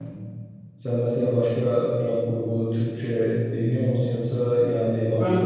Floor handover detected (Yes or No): Yes